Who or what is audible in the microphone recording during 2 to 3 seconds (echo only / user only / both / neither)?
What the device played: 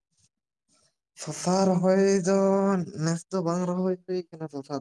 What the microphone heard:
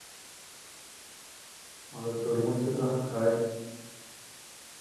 user only